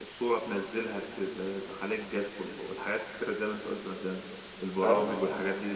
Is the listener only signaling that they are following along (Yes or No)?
Yes